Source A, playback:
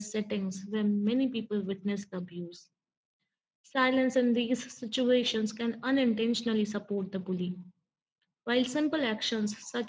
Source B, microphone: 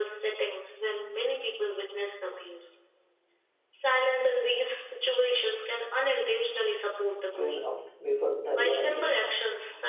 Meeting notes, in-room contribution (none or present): present